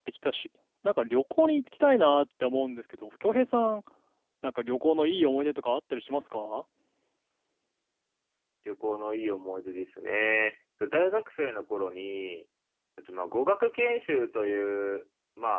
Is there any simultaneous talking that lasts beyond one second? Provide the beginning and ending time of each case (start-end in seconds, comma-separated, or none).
none